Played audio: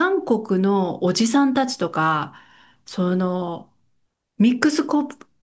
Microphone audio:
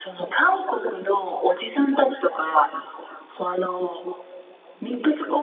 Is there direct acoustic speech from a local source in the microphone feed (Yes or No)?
No